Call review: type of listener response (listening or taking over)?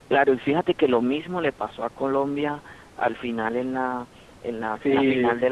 listening